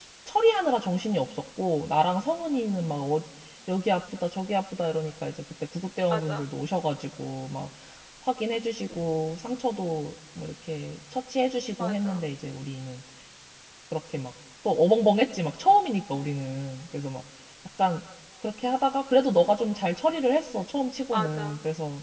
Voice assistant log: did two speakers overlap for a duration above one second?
No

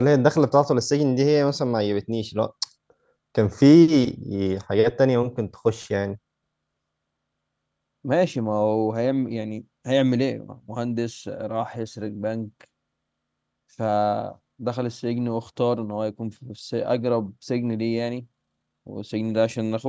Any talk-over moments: No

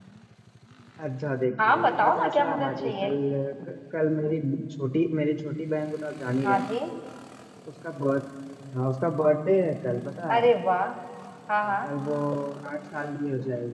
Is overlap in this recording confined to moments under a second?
No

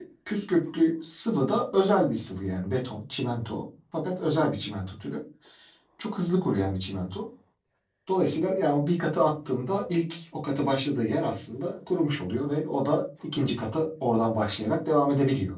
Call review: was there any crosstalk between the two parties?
No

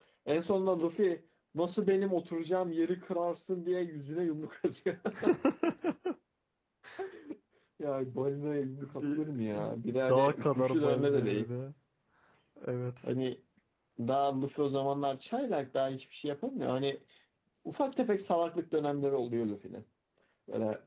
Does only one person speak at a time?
No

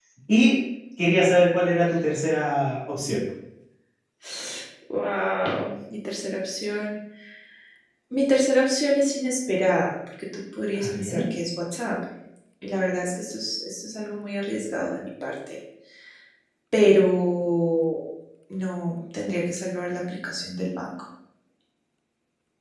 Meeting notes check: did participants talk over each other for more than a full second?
No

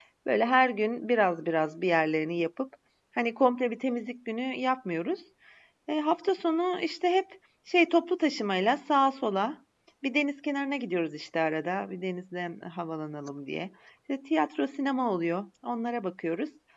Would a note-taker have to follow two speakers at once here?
No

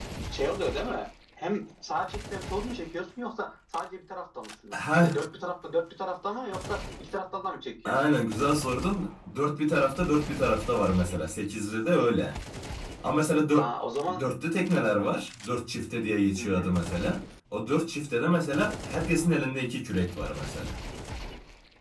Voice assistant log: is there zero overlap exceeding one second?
Yes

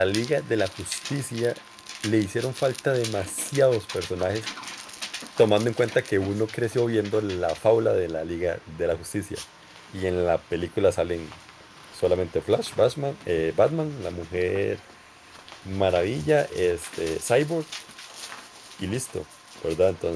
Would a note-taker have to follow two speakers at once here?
No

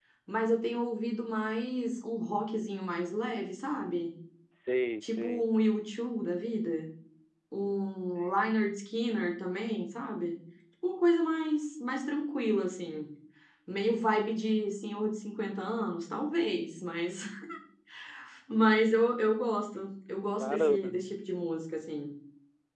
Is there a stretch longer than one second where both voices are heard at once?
No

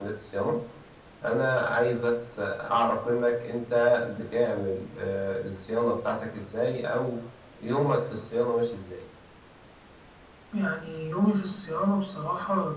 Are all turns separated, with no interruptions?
Yes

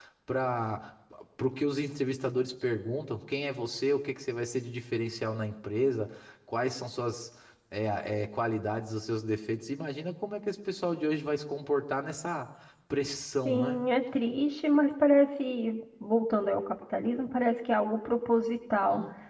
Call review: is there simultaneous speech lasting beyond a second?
No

